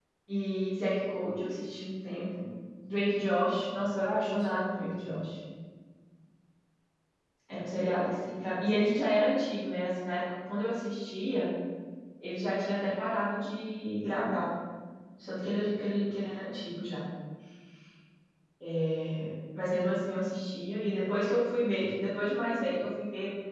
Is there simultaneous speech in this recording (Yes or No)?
Yes